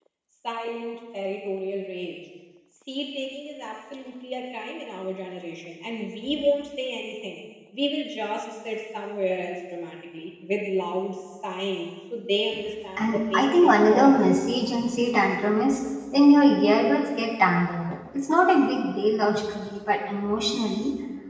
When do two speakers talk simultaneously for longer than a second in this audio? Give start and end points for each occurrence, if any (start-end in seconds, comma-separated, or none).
13.0-14.2